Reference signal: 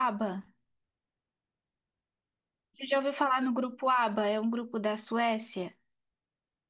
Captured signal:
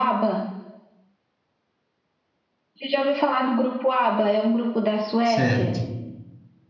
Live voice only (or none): certo?